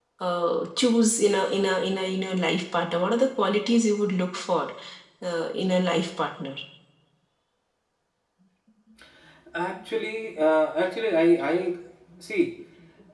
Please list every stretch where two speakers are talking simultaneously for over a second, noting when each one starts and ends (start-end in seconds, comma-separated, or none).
none